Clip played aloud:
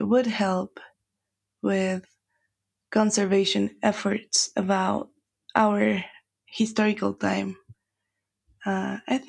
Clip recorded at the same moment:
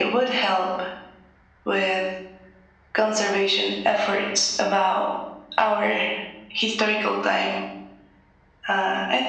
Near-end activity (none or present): none